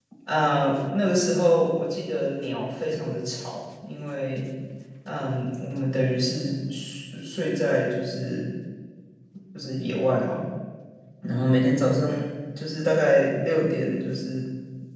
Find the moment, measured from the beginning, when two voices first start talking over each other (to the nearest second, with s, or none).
none